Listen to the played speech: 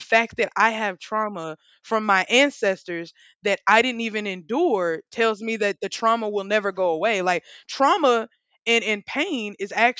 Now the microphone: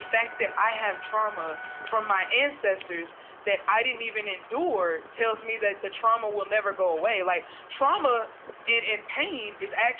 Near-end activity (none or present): none